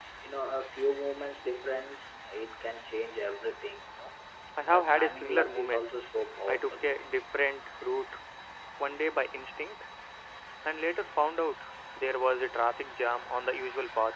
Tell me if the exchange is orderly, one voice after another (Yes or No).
No